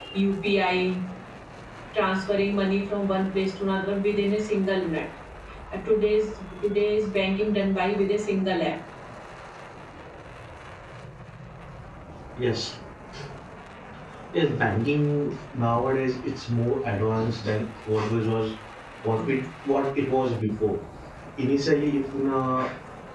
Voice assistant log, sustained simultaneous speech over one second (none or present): none